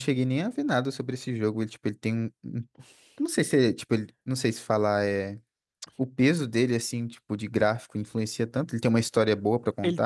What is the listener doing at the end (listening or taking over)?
taking over